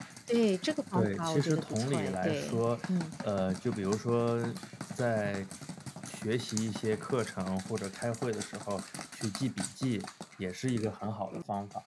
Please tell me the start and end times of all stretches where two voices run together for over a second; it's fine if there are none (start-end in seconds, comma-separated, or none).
0.9-2.6